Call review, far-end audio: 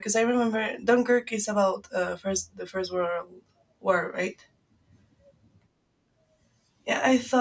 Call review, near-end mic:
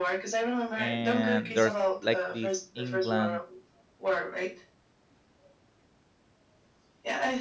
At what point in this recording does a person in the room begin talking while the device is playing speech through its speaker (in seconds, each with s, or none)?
0.8 s